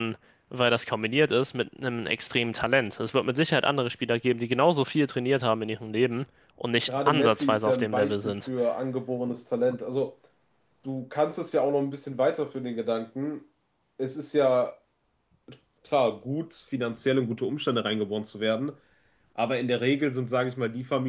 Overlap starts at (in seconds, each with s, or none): 6.7 s